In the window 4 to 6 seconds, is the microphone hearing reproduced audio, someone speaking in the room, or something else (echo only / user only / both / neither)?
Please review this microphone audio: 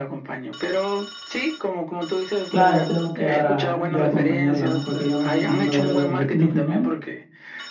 both